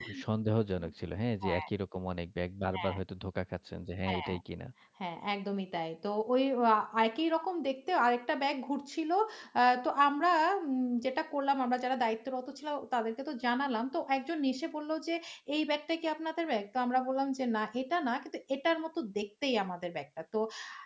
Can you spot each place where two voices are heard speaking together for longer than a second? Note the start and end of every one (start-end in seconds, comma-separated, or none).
none